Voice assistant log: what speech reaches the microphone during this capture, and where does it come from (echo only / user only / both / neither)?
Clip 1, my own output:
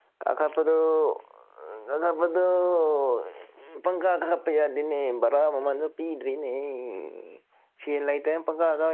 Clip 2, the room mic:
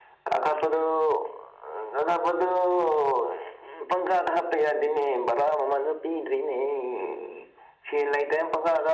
echo only